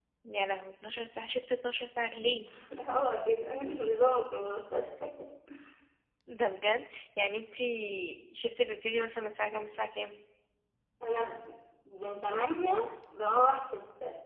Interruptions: none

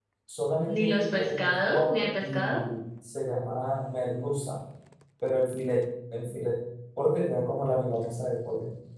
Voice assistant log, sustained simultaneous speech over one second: present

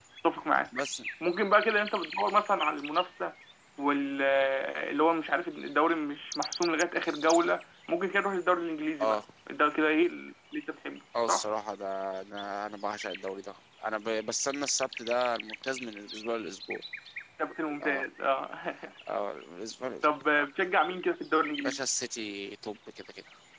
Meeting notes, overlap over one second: none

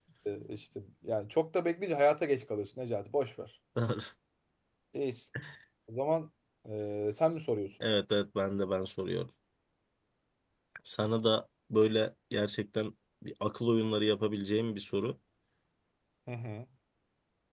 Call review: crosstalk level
none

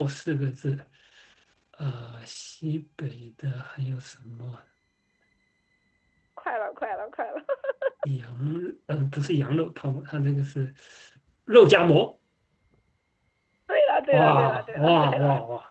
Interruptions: present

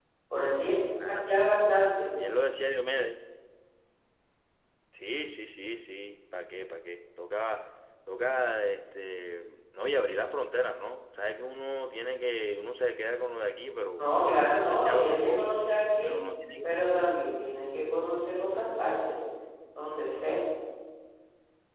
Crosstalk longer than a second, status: present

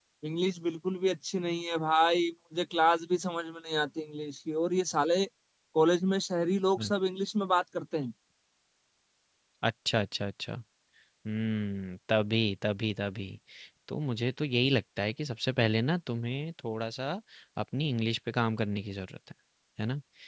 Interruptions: none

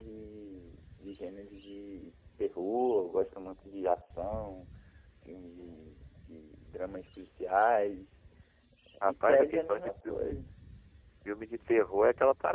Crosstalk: present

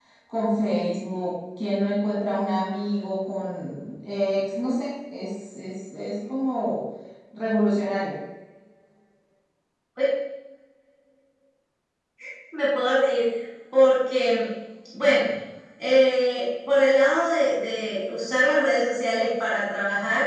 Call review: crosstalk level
none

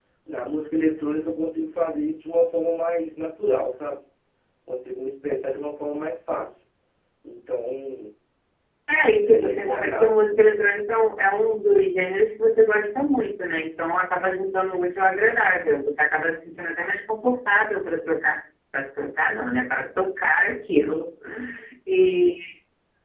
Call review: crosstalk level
present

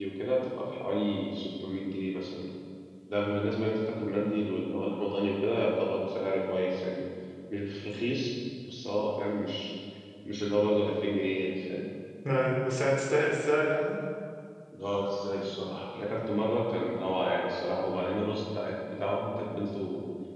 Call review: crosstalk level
none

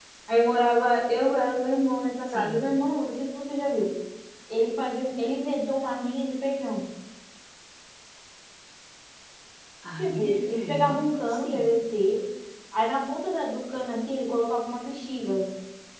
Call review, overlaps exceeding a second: present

